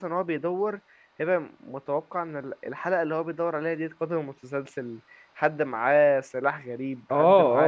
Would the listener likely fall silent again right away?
No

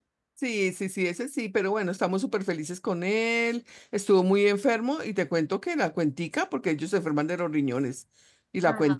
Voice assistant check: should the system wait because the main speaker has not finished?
Yes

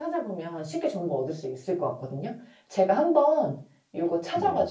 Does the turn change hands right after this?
No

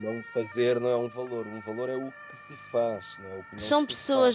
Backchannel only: No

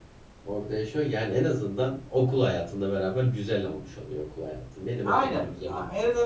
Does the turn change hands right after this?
Yes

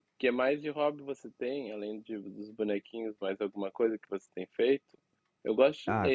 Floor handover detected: Yes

